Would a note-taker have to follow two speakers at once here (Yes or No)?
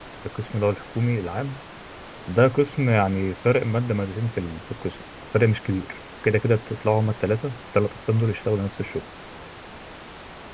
No